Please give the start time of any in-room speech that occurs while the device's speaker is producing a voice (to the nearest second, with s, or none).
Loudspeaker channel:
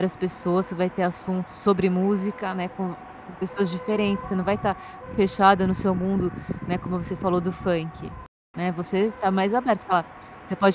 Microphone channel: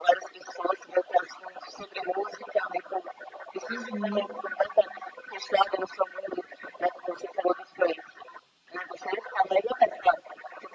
4 s